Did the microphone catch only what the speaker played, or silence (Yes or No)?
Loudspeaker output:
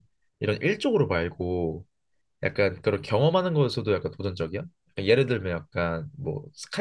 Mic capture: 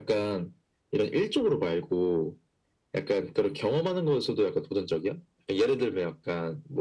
Yes